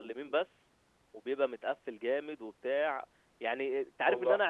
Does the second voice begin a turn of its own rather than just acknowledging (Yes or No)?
No